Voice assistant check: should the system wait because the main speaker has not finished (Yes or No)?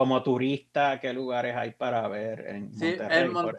No